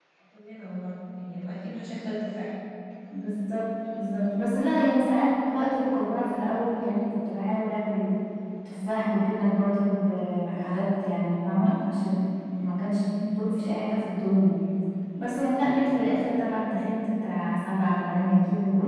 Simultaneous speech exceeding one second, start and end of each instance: none

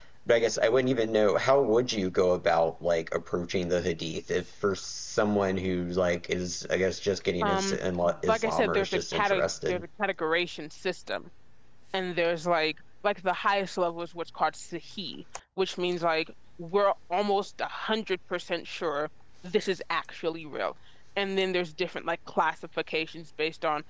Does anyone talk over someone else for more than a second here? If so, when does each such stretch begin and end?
8.3-9.8

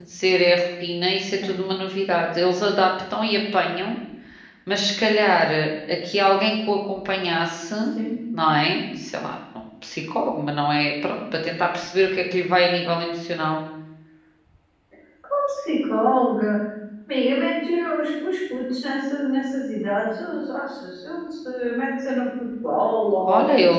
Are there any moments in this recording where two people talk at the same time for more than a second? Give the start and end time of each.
none

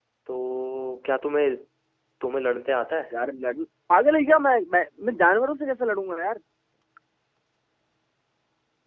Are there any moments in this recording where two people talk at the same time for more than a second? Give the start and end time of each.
none

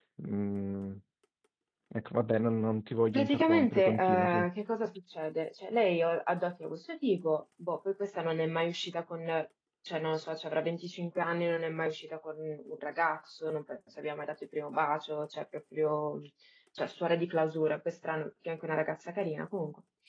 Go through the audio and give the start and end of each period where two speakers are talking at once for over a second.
3.1-4.5

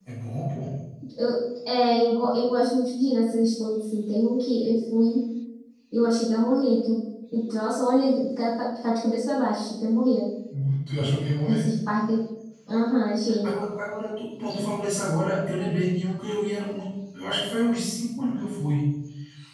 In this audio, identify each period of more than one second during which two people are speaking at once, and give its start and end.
none

